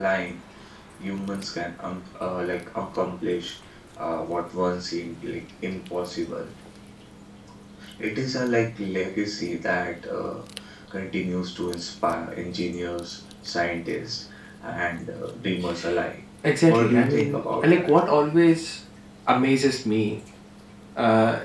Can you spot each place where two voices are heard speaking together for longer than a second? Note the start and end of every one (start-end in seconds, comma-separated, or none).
16.7-17.9